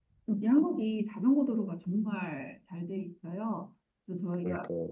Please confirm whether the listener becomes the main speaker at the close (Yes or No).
No